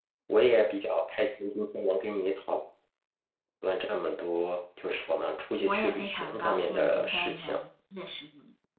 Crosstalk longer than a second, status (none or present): present